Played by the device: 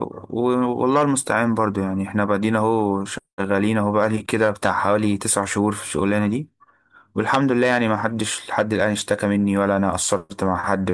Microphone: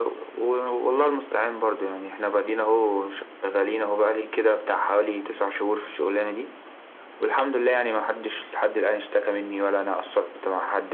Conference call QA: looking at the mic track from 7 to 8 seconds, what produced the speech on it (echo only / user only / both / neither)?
echo only